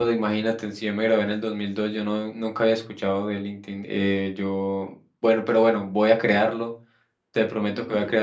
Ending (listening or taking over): listening